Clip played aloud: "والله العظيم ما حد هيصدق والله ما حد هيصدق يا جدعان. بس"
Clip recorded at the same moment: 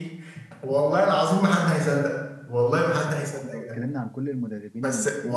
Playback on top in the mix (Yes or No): Yes